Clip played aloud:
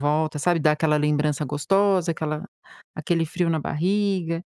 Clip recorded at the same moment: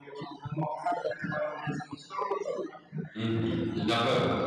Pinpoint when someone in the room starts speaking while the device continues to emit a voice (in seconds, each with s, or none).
3.2 s